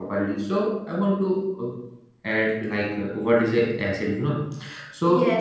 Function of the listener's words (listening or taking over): taking over